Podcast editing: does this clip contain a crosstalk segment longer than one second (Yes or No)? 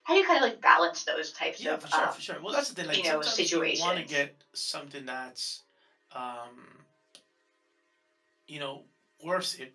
Yes